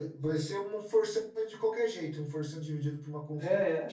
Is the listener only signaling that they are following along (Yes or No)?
No